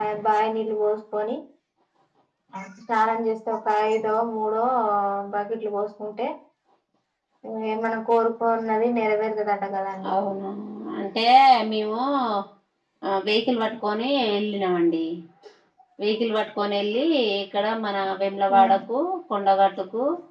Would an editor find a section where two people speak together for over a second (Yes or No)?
No